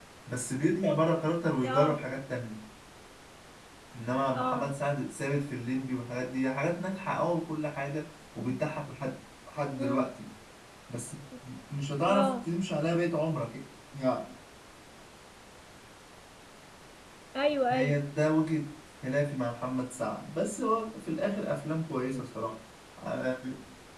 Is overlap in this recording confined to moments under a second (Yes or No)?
Yes